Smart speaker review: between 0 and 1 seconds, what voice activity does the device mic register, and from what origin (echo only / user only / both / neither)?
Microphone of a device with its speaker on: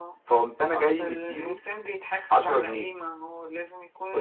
echo only